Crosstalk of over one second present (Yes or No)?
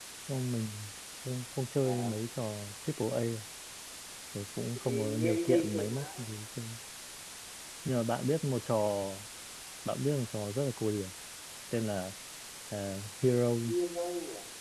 Yes